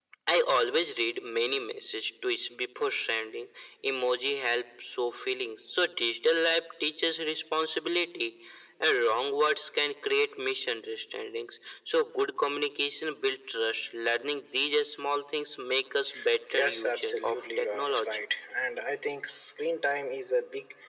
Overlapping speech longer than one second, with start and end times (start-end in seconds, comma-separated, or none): 16.5-18.2